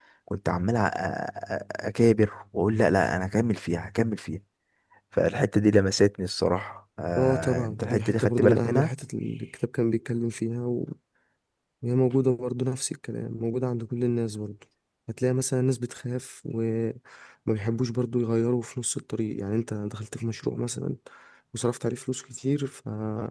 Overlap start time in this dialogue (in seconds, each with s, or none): 7.2 s